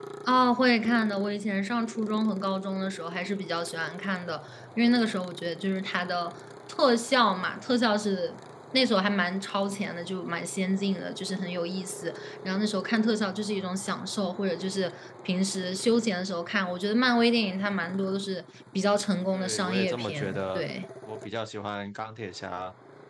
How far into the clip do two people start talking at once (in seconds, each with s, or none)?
19.3 s